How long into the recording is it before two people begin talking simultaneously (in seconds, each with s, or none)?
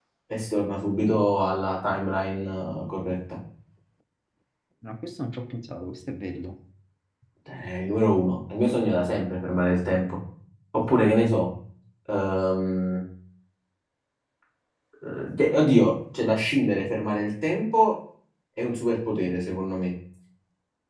none